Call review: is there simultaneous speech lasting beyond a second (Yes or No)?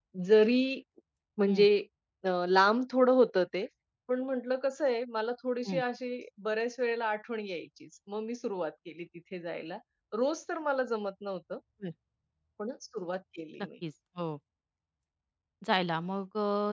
No